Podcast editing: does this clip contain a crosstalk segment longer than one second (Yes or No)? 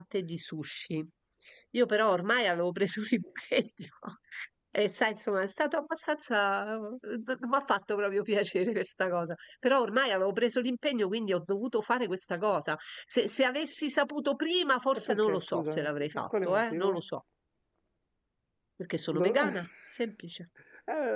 Yes